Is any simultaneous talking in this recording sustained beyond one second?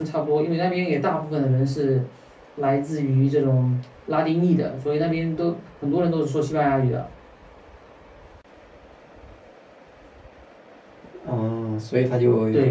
No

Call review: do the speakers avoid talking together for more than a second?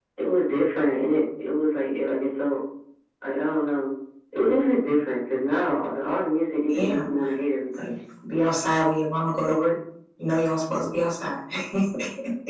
Yes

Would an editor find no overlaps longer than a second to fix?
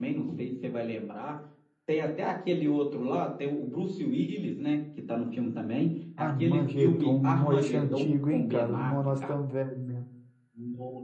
No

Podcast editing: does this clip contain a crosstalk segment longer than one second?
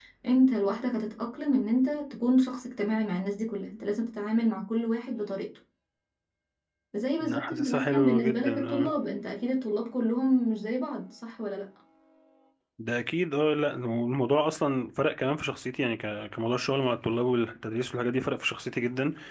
Yes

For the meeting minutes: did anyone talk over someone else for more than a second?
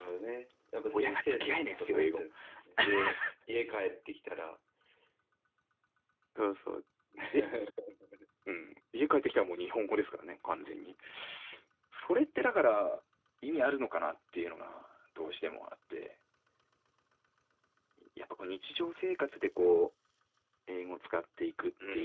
Yes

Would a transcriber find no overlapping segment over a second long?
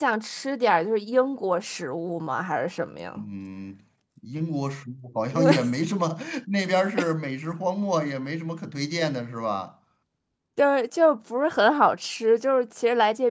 Yes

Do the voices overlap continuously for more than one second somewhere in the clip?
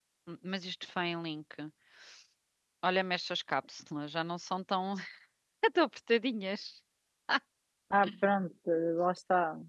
No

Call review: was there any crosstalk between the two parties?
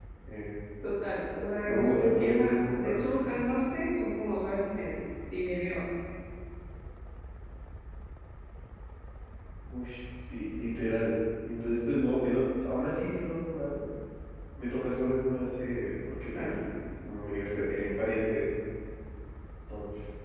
Yes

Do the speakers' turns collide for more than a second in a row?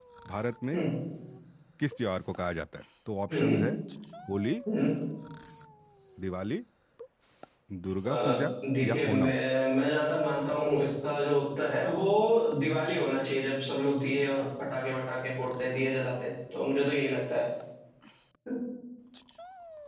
No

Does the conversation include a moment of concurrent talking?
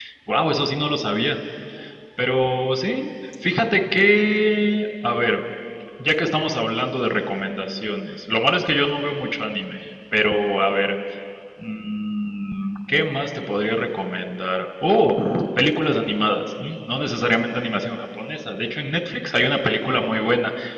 No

